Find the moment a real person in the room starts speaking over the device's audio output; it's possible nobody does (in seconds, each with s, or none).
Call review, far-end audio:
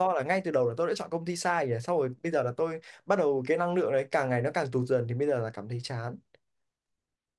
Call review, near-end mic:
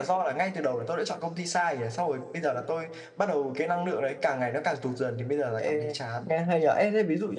5.6 s